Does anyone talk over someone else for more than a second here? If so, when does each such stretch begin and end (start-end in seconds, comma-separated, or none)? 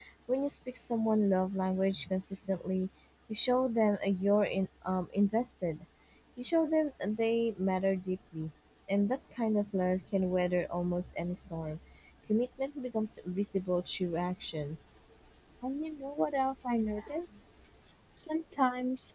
none